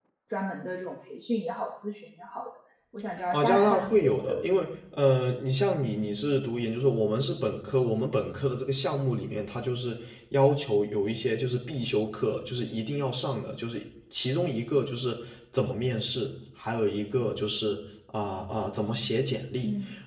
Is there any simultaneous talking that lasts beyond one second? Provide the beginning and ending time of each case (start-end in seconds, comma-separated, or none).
3.3-4.6